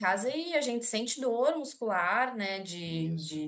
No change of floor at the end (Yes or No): Yes